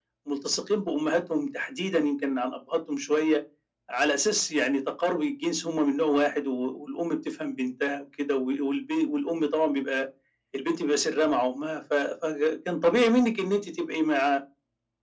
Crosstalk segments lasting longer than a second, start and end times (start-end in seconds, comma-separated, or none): none